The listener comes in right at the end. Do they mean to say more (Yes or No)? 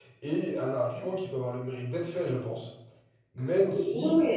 Yes